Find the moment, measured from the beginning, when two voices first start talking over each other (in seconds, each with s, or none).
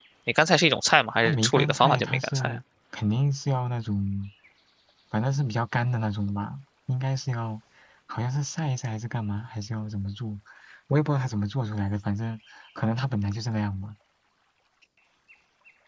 1.2 s